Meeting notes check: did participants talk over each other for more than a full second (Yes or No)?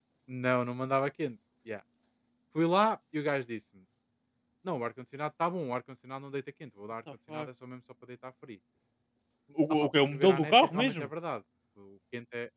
Yes